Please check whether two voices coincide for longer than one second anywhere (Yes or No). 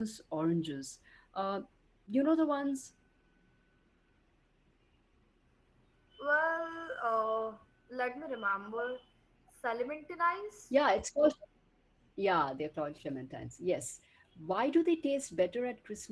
No